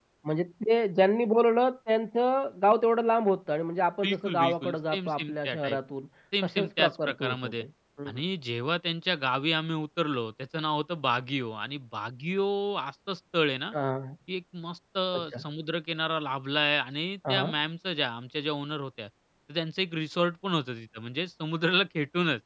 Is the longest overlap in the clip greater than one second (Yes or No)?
Yes